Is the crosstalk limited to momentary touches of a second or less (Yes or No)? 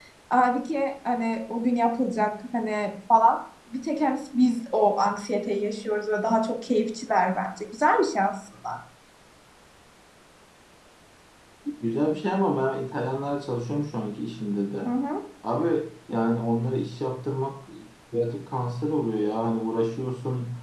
Yes